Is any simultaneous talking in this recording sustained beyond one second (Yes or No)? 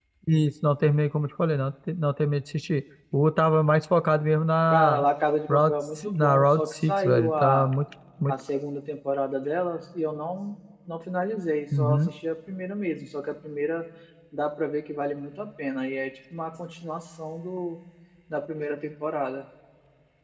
Yes